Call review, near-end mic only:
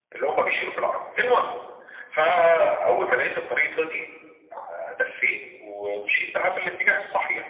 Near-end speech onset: none

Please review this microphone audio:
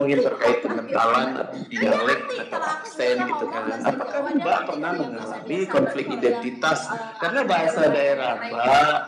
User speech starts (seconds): none

